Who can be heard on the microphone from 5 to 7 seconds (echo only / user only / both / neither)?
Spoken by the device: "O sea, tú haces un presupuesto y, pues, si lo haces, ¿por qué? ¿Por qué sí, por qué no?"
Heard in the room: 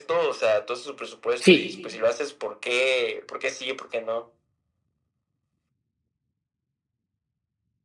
neither